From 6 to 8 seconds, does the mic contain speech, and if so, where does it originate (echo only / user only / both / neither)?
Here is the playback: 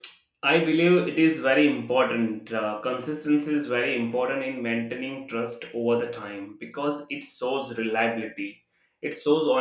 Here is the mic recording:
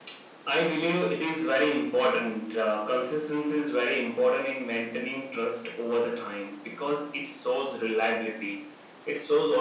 echo only